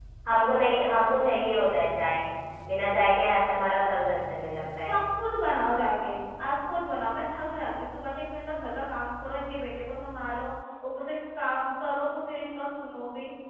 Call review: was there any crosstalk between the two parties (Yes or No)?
No